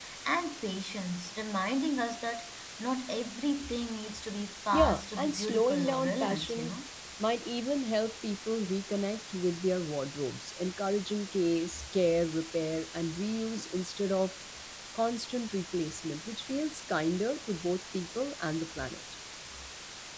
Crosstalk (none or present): present